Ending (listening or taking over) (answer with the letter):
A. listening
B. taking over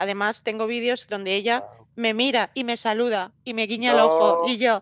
A